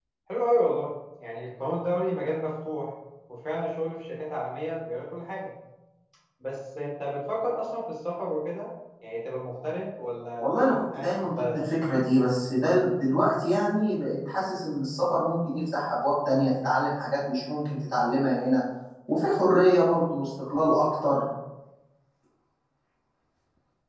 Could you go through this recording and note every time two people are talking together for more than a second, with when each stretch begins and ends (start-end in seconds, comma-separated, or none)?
10.4-11.7